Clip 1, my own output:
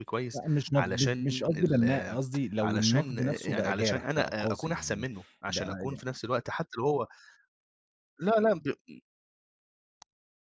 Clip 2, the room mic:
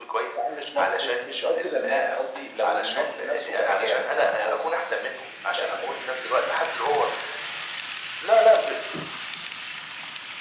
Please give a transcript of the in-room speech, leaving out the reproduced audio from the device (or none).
none